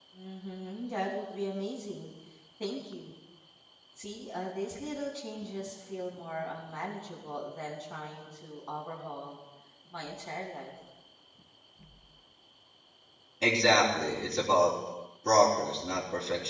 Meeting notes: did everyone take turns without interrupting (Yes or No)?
Yes